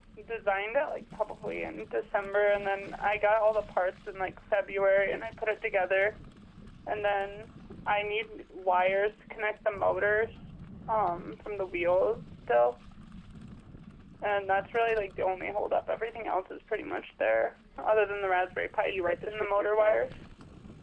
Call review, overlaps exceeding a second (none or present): present